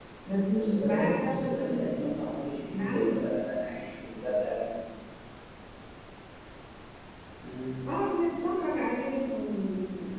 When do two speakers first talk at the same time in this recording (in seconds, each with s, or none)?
0.6 s